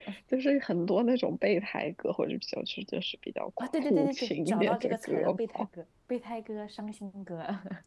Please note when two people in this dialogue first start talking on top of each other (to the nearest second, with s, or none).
4 s